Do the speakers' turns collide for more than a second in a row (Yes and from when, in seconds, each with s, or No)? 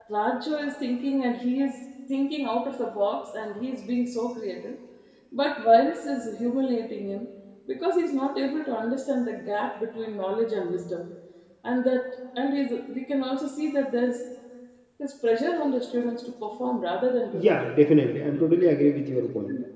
No